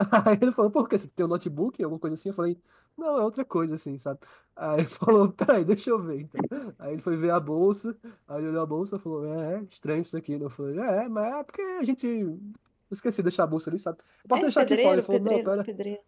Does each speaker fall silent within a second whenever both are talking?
No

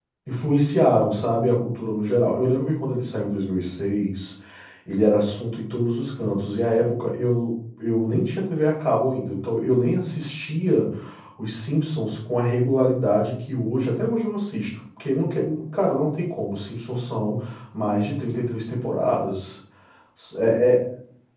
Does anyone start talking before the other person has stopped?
No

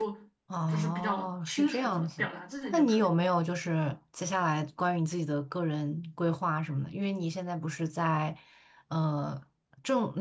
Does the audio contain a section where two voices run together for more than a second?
Yes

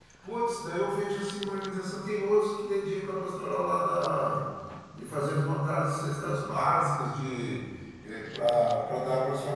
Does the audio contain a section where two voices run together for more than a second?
No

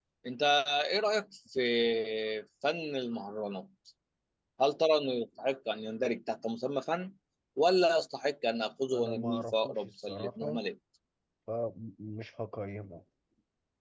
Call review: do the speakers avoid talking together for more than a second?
No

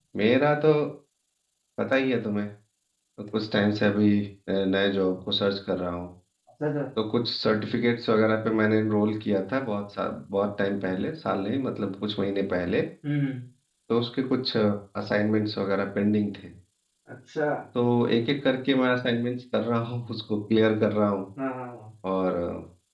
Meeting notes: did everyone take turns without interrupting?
Yes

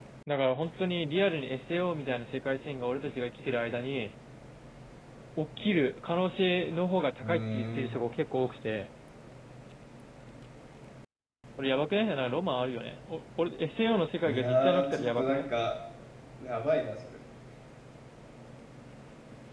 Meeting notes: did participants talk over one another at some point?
Yes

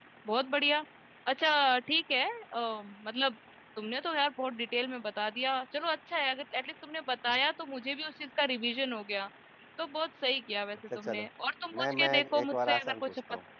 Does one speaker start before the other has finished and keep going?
Yes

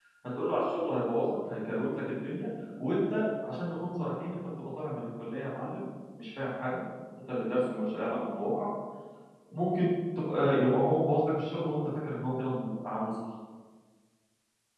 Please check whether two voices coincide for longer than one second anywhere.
No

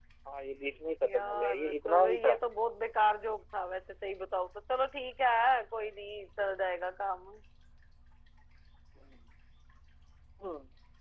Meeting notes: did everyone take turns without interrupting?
No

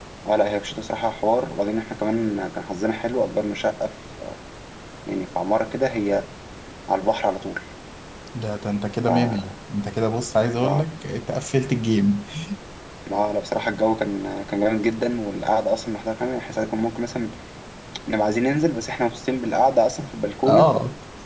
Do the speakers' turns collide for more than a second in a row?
No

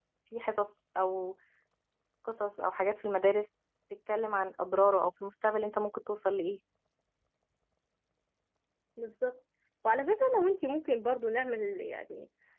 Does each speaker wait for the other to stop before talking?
Yes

